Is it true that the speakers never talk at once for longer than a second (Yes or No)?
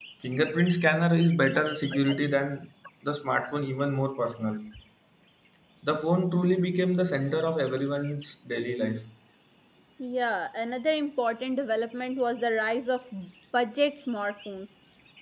Yes